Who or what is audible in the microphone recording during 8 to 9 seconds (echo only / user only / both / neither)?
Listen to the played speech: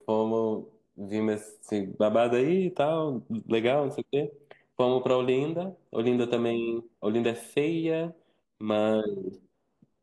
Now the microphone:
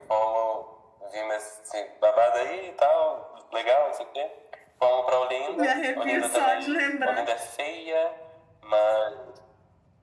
echo only